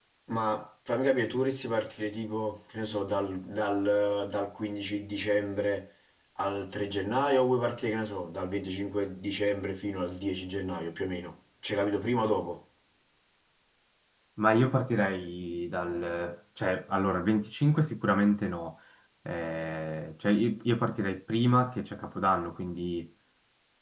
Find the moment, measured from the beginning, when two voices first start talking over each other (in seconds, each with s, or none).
none